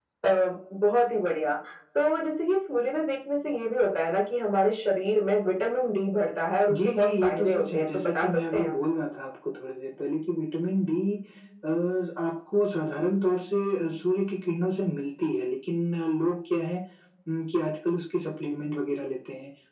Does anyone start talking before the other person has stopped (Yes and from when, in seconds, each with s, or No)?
Yes, from 6.7 s